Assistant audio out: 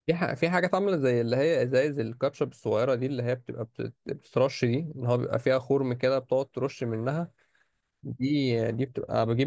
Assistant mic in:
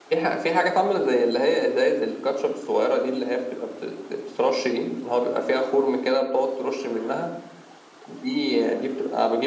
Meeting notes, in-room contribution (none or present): none